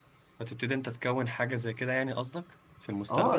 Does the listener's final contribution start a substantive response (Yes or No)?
Yes